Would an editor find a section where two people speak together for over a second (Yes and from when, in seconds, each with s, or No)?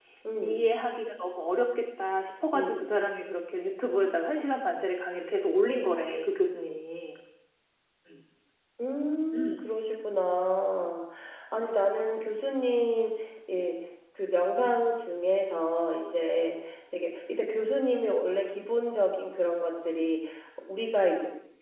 No